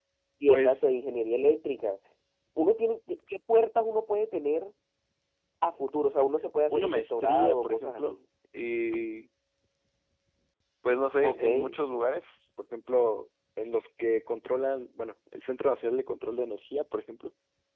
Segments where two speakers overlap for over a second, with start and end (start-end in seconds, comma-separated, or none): 6.7-8.2